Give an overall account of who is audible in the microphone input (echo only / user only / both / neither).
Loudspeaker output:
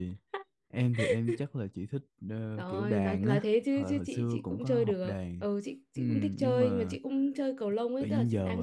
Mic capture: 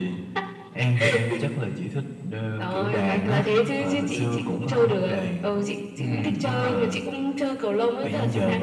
both